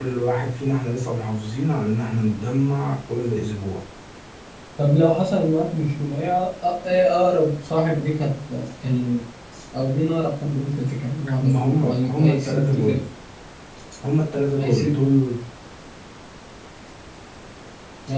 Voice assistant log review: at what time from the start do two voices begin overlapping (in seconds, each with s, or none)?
11.4 s